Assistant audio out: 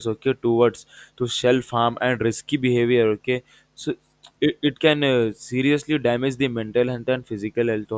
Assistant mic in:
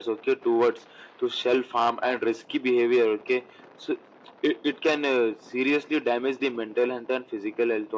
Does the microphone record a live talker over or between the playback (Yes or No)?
No